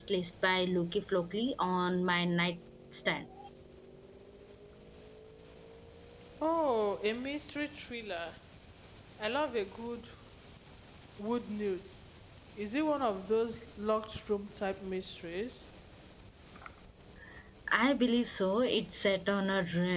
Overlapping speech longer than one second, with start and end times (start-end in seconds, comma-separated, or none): none